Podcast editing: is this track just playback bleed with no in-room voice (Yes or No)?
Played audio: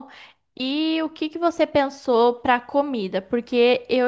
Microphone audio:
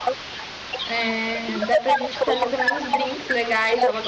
No